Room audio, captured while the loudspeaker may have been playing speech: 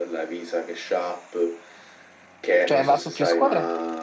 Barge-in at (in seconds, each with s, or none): 2.6 s